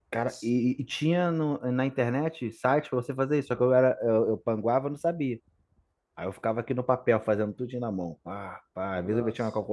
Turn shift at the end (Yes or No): No